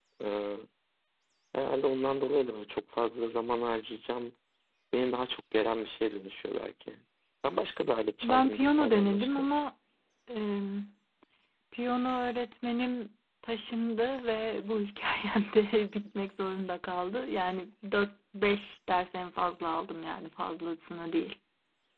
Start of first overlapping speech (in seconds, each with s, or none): 8.2 s